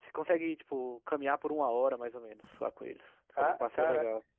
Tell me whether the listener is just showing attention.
No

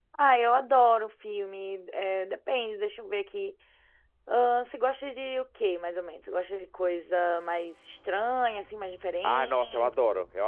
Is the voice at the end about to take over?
Yes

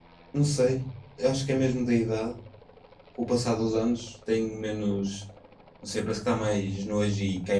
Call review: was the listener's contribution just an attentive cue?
Yes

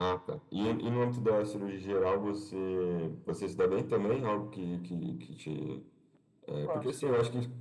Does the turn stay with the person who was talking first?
Yes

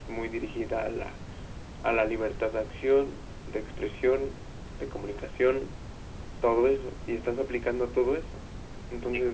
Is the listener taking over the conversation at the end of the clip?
No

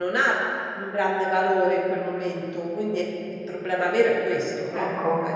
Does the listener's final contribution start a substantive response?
Yes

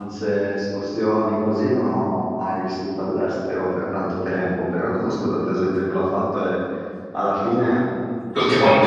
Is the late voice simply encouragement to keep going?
Yes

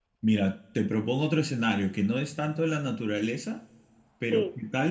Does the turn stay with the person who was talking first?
Yes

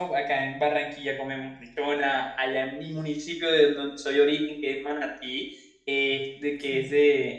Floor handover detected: No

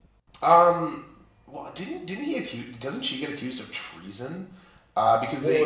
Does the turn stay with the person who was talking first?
Yes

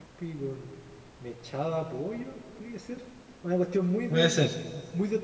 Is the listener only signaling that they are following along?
Yes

